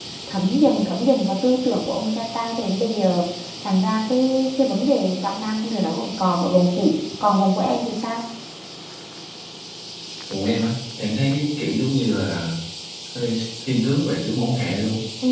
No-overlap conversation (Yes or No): Yes